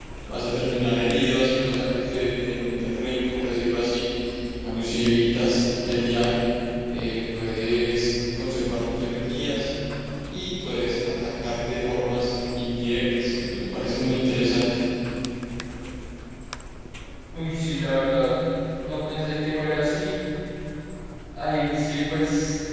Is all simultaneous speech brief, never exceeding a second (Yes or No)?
Yes